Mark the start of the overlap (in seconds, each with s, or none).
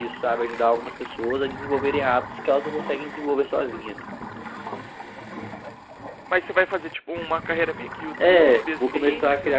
8.2 s